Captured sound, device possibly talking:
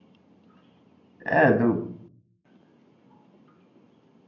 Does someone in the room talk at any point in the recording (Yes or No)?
Yes